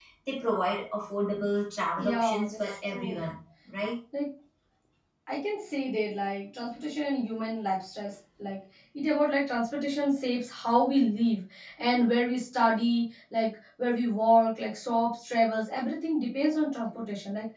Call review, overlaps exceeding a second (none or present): present